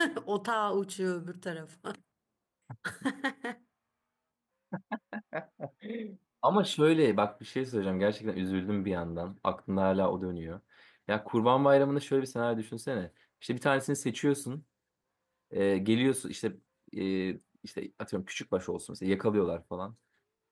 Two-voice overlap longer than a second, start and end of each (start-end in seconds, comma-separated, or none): none